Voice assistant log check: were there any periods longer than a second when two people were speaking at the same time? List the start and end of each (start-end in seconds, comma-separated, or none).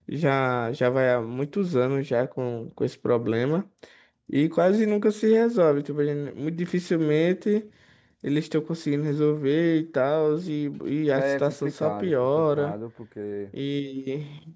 11.2-12.7